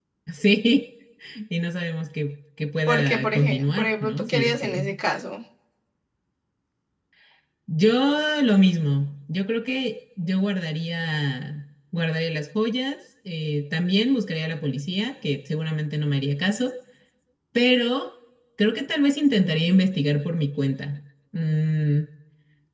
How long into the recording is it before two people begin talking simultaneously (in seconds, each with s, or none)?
2.9 s